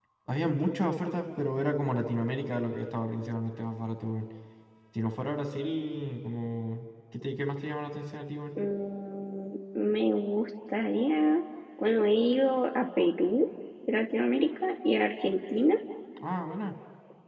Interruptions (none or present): none